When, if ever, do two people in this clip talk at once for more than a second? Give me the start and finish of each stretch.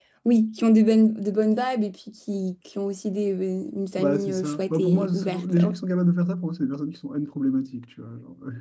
4.0-5.7

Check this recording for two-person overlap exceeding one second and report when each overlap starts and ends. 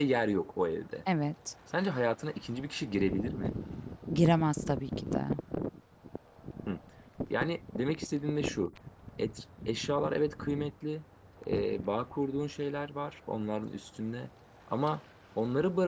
none

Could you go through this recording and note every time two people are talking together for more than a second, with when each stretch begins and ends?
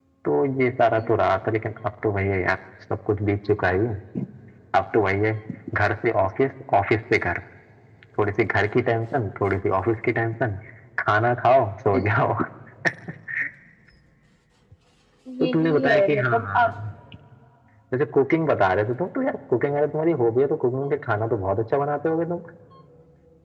15.4-16.7

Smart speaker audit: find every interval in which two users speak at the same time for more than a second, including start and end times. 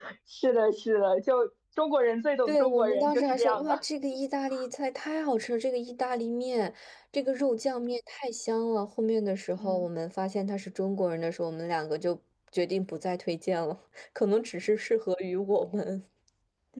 2.5-3.8

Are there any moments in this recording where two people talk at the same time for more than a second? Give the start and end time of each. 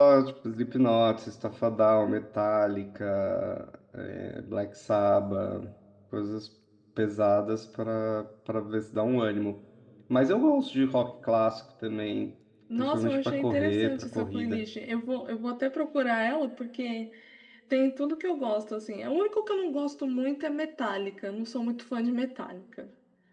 12.8-14.6

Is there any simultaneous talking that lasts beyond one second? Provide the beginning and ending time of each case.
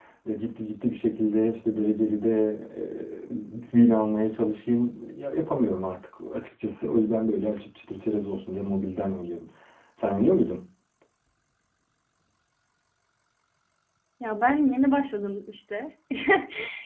none

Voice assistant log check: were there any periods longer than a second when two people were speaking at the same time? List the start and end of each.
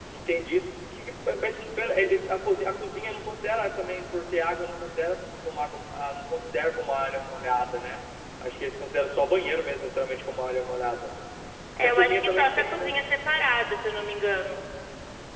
11.8-13.0

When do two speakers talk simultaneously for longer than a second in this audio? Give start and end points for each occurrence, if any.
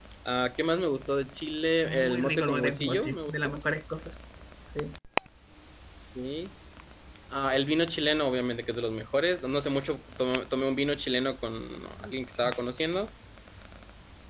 1.9-3.6

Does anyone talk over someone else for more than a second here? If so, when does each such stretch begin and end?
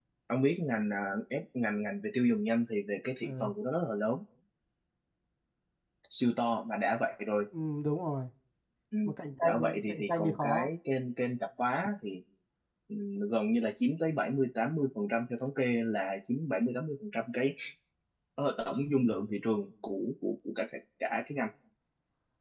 9.4-10.7

